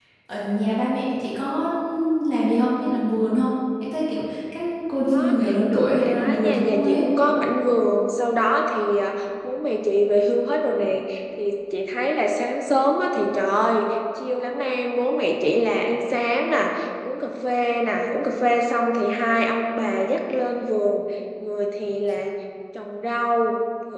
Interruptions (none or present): present